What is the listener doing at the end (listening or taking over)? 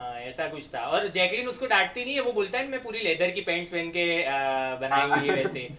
listening